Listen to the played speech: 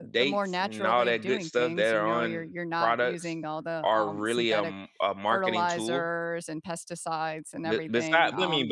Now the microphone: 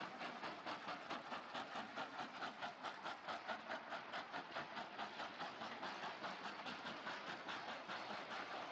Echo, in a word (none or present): none